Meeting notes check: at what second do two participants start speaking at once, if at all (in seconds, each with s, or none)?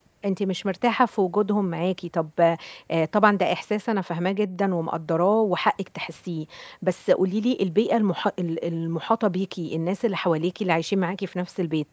none